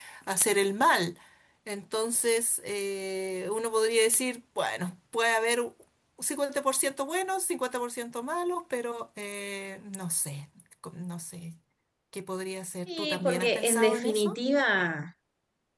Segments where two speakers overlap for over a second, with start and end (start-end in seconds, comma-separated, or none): 12.9-14.4